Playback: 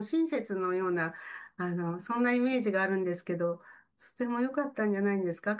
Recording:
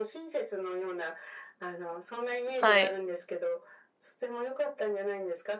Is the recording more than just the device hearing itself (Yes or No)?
Yes